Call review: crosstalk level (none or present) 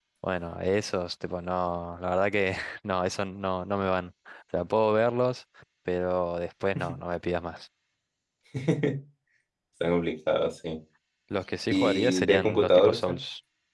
present